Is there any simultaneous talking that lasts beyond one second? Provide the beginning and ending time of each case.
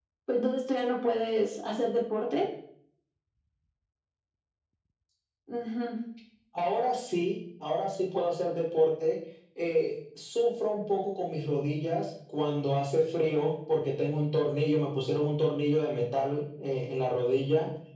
none

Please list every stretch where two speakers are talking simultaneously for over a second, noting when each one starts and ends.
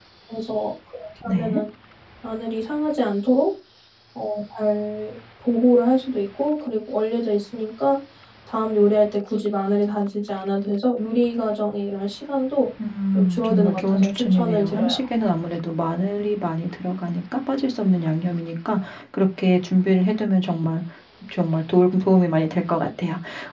13.1-14.9

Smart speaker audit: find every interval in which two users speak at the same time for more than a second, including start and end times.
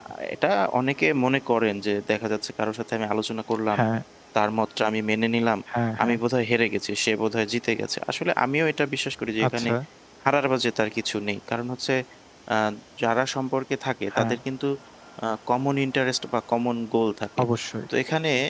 none

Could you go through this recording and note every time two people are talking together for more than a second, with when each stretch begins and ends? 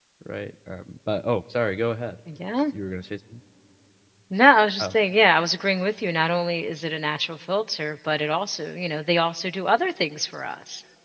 none

